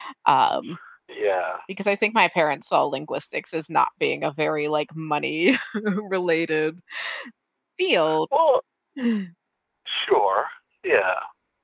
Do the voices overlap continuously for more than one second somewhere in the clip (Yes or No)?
No